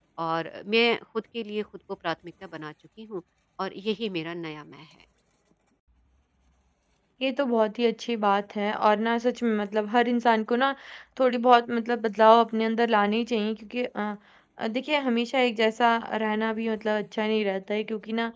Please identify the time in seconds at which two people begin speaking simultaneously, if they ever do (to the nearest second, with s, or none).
none